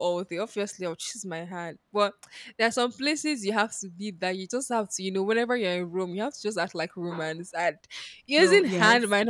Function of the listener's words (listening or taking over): listening